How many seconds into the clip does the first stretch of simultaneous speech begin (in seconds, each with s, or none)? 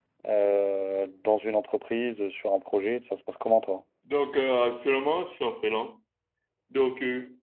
none